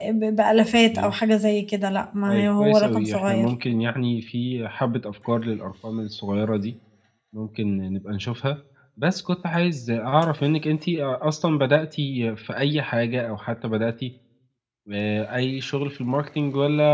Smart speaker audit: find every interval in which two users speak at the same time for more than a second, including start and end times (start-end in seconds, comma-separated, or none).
2.3-3.5